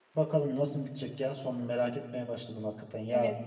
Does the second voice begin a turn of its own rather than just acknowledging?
Yes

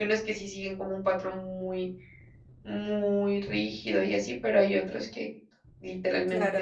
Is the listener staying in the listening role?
Yes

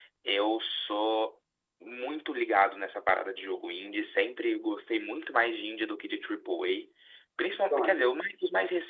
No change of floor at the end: Yes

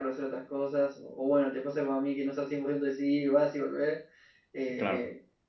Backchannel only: Yes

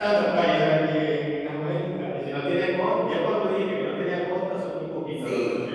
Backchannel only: No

